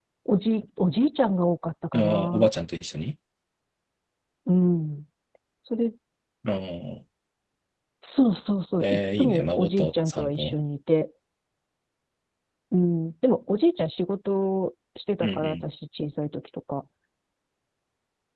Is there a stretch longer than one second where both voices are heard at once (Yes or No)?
Yes